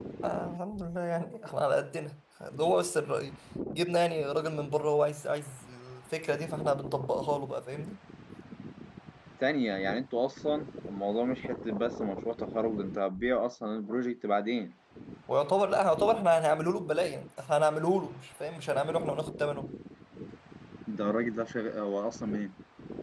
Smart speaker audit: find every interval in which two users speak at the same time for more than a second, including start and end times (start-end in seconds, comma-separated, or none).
none